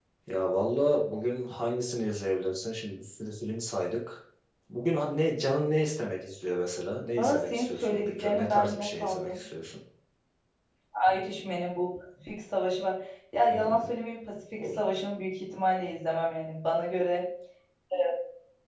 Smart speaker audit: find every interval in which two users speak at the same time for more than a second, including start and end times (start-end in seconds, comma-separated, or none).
7.2-9.4